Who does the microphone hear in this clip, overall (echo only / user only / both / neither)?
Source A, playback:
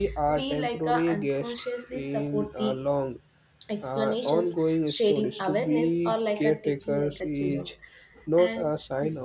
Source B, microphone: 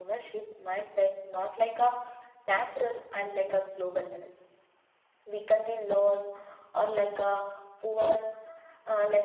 user only